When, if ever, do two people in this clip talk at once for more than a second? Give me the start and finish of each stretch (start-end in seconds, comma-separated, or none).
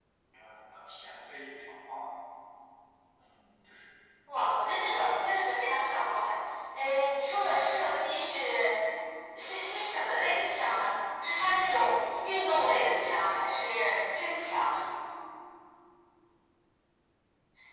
none